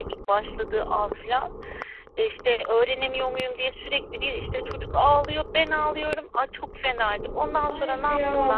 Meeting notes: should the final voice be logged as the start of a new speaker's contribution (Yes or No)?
Yes